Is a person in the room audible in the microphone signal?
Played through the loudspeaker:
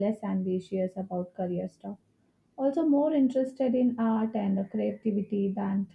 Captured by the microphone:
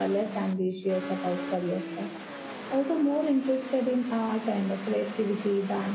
No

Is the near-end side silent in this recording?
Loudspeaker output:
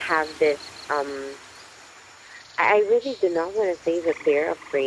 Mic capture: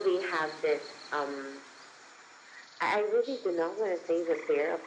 Yes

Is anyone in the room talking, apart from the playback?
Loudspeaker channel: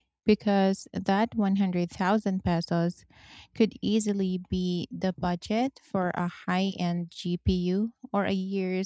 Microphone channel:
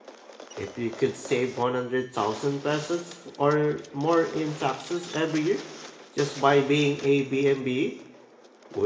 Yes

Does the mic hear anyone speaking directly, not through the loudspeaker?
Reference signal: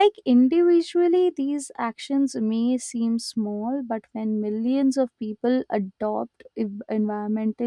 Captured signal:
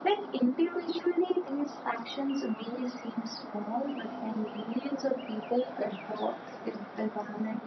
No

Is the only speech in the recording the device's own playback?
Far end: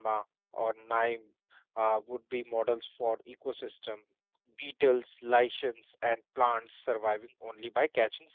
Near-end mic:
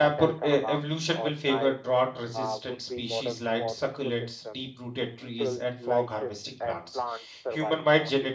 No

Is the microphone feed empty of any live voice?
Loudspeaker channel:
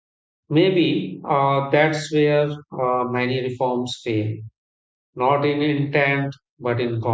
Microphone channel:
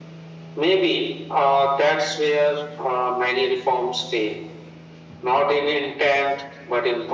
Yes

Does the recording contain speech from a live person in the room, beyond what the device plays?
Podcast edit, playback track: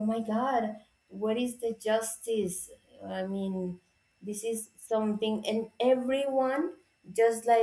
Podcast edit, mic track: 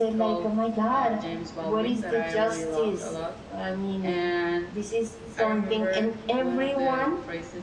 Yes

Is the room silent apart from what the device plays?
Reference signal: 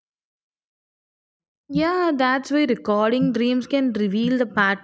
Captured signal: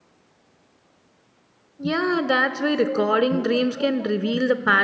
No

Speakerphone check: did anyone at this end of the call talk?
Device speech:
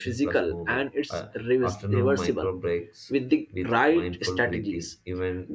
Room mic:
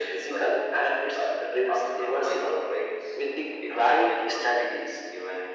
No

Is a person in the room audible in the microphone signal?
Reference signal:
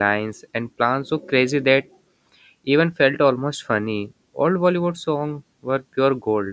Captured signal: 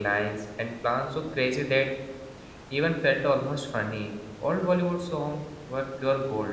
No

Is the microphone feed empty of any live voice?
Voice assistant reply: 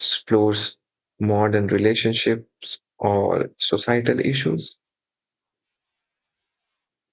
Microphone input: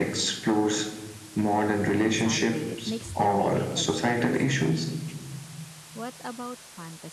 No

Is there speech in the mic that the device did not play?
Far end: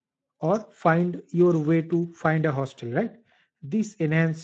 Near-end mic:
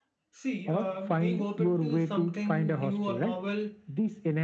Yes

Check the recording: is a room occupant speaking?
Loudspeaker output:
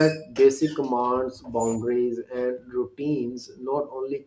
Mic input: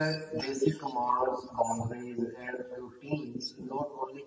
No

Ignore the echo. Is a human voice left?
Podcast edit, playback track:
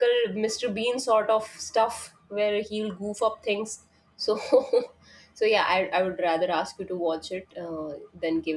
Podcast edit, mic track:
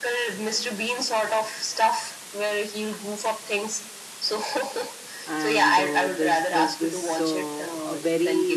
Yes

